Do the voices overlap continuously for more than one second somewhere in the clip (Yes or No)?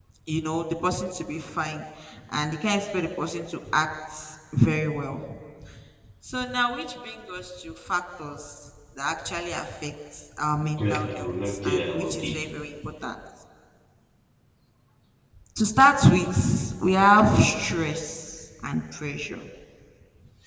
Yes